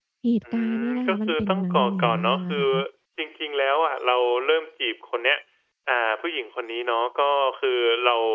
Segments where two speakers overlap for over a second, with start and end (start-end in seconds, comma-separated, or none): 0.5-2.6